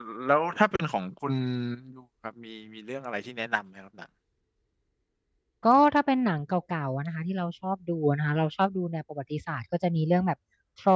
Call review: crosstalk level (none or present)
none